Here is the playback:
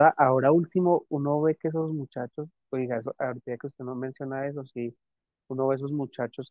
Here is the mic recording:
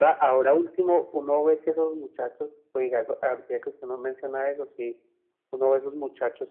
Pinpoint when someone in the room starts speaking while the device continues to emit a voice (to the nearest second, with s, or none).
none